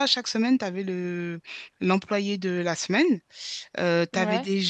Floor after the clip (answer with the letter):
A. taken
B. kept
B